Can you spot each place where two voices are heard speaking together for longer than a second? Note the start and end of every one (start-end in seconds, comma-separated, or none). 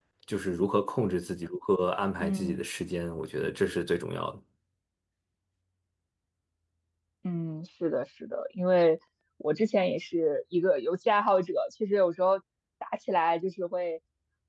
none